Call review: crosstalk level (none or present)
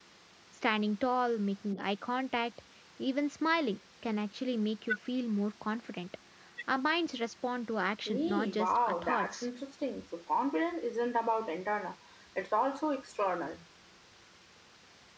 present